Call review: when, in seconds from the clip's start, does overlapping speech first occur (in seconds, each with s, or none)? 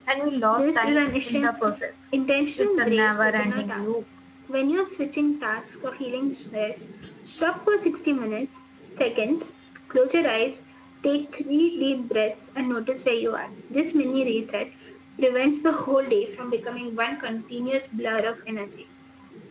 0.5 s